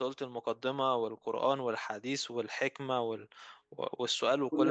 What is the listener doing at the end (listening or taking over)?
listening